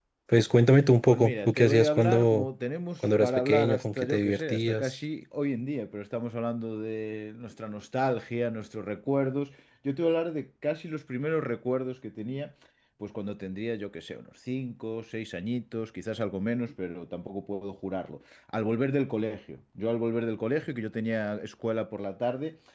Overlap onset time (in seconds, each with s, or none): 1.0 s